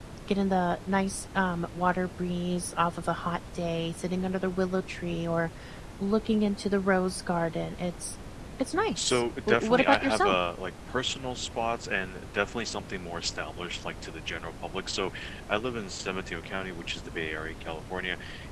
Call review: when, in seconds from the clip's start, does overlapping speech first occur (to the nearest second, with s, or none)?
9 s